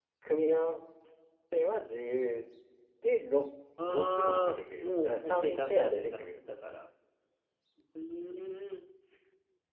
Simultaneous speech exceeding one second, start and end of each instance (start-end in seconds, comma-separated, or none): 3.9-6.2